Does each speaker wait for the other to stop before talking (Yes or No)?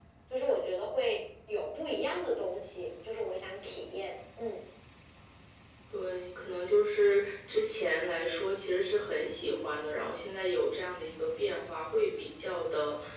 Yes